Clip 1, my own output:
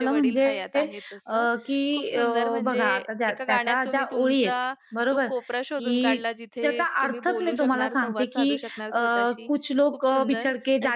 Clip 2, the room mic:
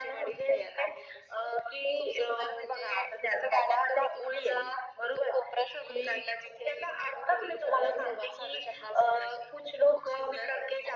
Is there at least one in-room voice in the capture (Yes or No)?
No